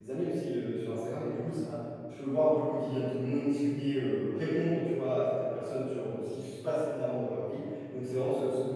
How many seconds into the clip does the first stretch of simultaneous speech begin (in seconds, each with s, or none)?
none